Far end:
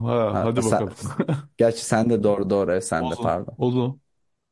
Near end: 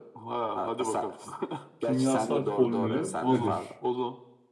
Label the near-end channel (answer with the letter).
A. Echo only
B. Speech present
B